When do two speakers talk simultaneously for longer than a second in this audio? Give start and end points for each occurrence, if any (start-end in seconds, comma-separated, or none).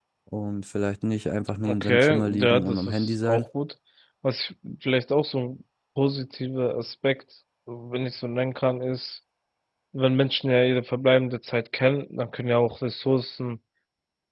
1.6-3.5